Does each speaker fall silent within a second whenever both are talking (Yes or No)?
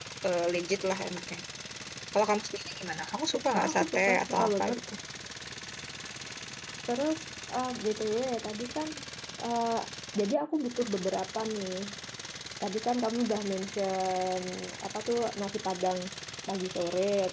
No